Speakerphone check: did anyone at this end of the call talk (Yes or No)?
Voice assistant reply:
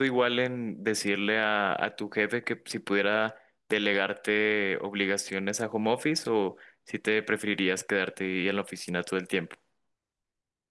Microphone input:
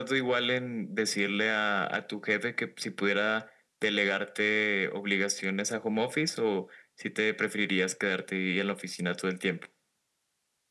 No